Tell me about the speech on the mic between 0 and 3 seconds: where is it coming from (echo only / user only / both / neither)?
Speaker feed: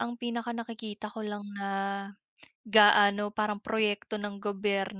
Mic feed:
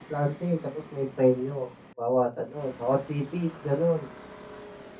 user only